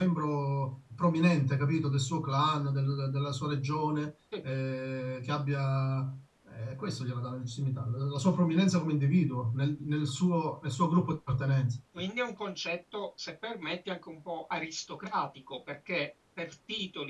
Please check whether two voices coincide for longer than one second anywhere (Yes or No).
No